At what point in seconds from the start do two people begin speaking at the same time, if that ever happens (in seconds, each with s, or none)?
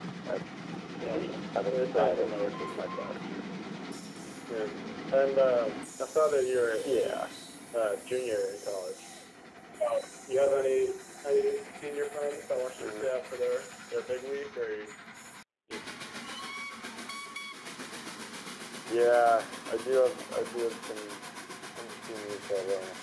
1.0 s